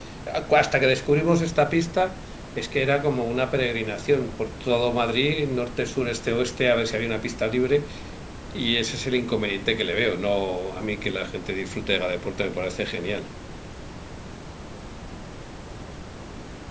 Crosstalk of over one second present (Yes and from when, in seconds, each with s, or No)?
No